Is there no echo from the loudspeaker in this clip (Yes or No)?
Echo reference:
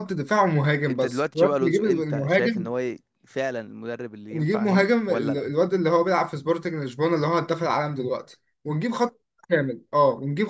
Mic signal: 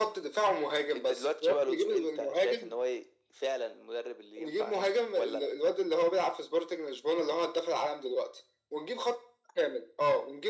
No